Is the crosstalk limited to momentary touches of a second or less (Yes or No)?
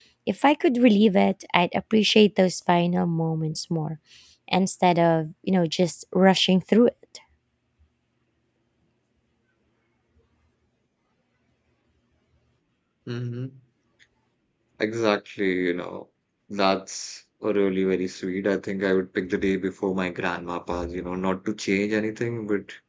Yes